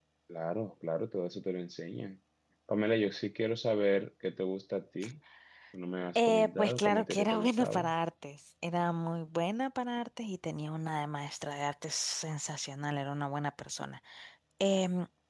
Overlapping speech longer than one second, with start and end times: 6.2-7.9

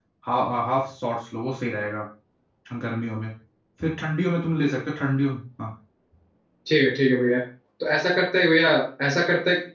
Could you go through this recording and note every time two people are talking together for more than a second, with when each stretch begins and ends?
none

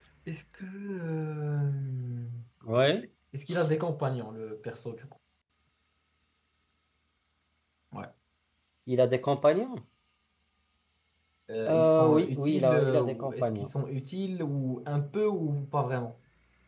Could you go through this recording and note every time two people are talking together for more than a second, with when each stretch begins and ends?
11.7-13.7

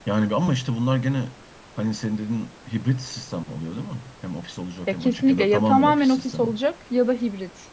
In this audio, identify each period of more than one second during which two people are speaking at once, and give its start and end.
4.9-6.5

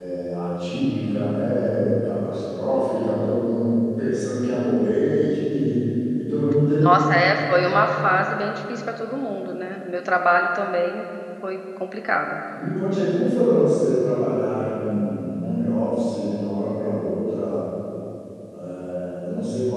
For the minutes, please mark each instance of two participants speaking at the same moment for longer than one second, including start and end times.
none

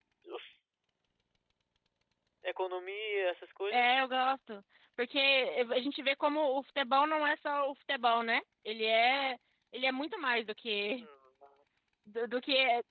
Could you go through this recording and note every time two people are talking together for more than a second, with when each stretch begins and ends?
none

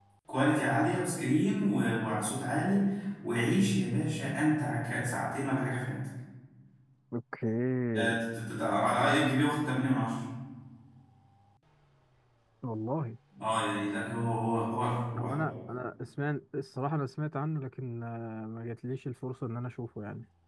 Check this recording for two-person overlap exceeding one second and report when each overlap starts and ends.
none

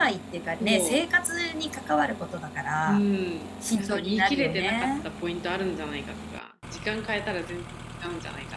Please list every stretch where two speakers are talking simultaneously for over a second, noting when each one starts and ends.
3.8-5.0

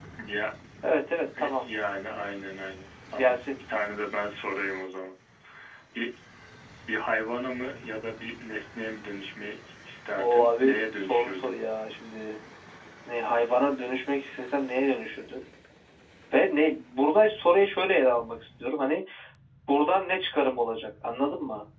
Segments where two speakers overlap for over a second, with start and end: 10.2-11.6

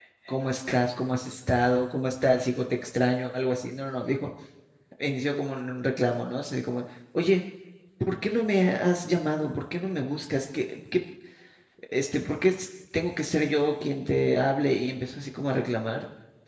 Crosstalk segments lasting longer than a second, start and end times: none

